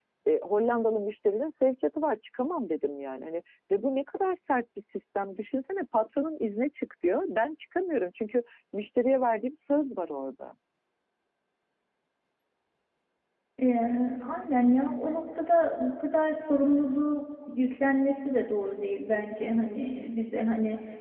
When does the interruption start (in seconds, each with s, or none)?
none